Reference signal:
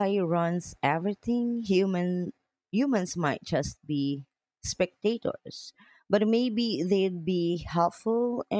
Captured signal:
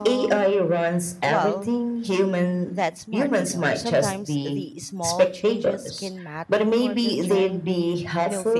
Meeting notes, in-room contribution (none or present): present